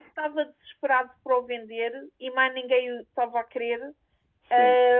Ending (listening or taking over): listening